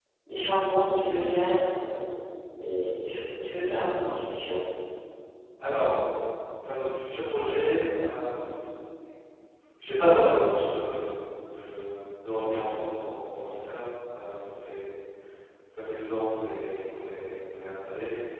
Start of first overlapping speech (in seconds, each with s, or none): none